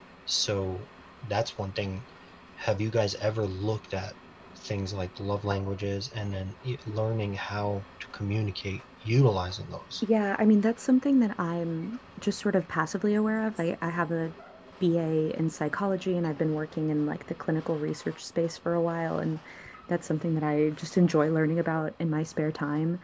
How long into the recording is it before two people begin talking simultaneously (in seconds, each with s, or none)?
none